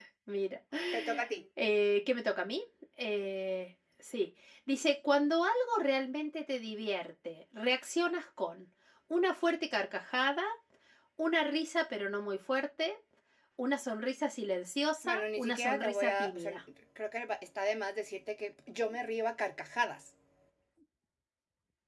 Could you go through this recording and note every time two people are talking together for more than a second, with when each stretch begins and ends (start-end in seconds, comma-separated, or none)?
15.0-16.5